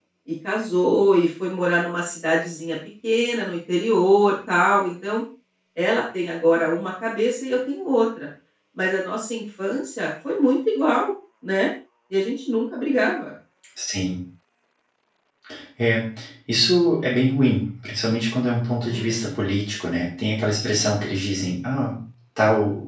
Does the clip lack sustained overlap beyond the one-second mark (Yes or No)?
Yes